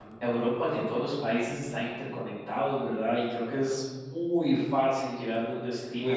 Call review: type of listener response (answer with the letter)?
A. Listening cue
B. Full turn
A